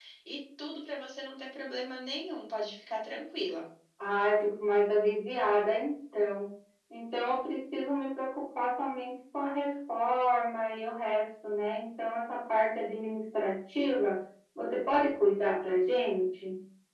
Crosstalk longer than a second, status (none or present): none